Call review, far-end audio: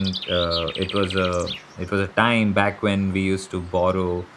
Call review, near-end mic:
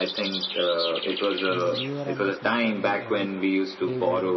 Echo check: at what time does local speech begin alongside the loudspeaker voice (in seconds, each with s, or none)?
1.5 s